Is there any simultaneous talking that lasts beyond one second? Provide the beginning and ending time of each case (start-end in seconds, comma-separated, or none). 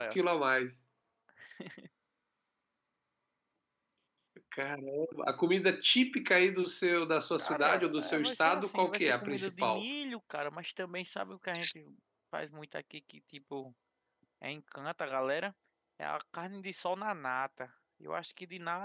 7.4-9.8